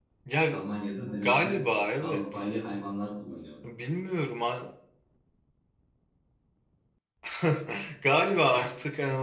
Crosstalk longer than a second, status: none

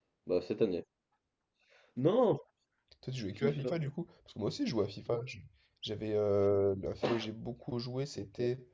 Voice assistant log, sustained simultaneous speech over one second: none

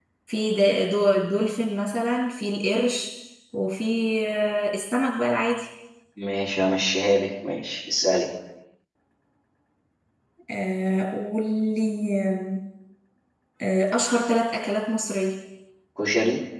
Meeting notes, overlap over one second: none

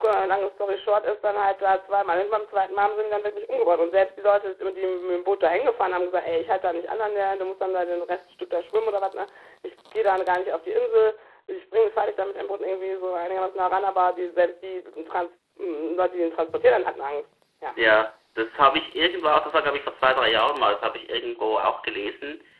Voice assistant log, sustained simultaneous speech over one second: none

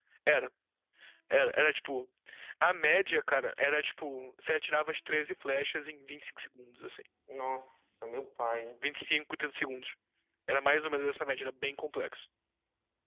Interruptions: none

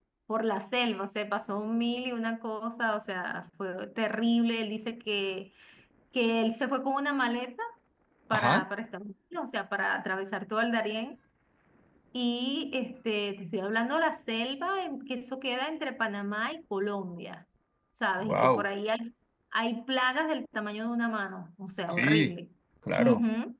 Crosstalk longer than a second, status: none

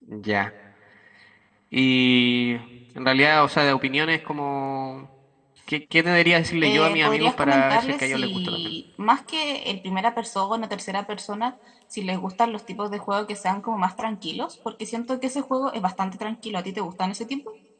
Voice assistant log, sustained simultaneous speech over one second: present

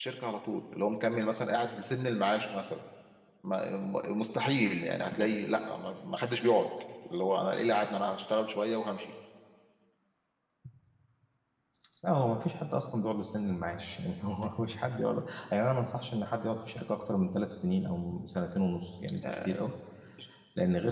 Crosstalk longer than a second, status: none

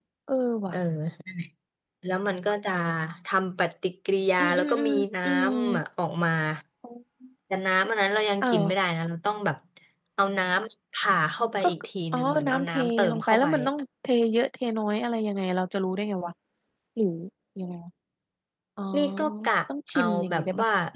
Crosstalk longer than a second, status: present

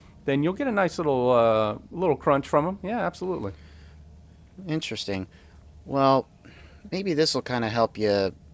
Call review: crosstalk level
none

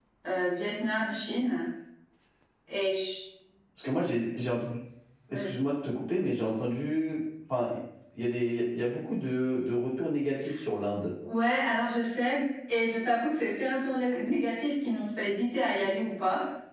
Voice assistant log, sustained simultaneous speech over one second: none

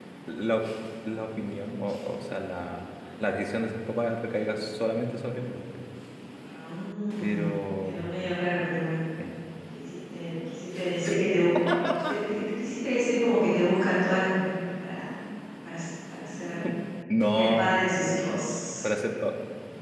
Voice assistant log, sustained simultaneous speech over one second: none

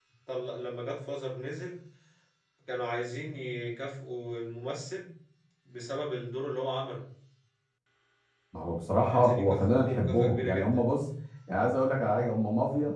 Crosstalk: present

